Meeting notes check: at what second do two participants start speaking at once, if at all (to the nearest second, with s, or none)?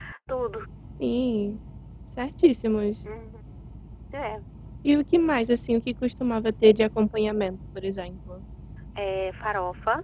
none